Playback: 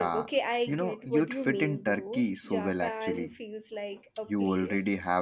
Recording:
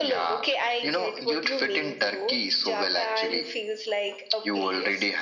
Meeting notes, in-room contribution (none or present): none